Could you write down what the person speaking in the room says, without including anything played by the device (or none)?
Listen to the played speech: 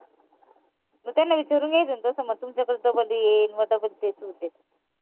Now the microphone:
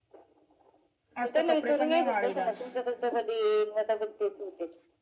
आज तर कपडे पण नाही वाळेल आज